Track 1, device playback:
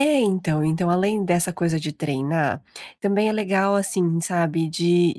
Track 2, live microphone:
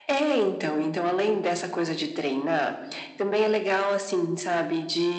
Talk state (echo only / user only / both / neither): echo only